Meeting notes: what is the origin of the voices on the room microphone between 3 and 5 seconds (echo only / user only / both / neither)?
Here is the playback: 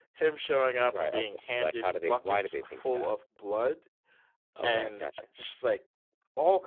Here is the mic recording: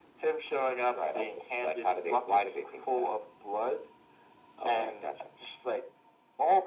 echo only